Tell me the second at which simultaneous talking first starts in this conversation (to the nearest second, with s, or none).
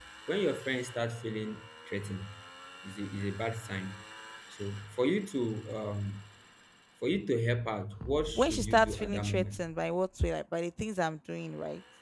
8 s